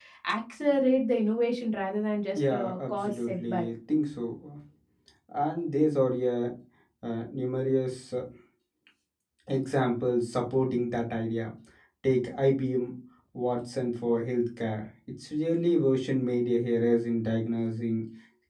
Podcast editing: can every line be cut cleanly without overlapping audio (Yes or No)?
No